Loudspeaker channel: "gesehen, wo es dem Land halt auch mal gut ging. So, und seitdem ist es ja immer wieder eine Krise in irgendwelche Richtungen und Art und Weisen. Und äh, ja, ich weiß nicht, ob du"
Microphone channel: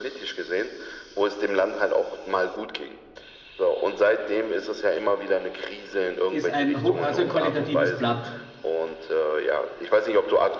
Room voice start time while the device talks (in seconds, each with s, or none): 6.3 s